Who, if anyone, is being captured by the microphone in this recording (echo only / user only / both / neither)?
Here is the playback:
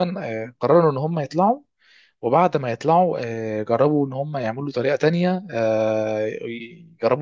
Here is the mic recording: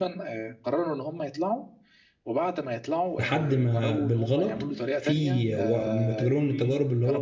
both